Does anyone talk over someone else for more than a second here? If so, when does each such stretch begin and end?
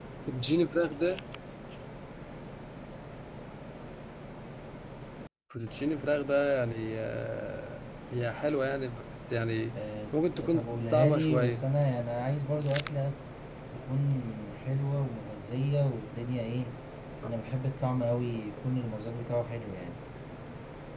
10.1-11.7

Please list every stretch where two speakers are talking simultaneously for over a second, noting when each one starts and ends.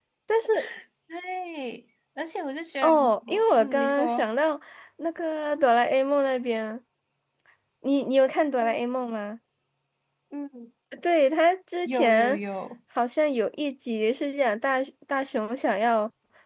2.8-4.3

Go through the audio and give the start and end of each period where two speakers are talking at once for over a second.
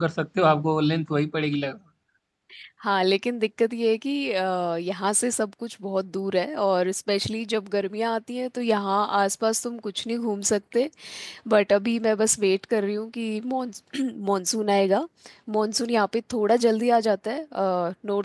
none

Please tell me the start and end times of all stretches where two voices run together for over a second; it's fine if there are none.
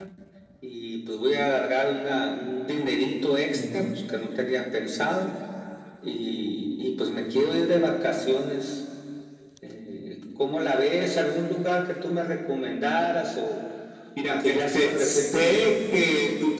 14.3-15.8

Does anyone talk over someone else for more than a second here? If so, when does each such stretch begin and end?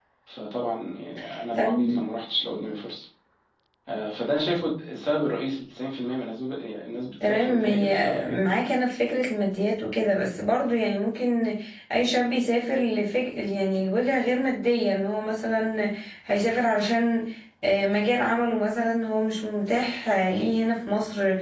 7.2-8.5

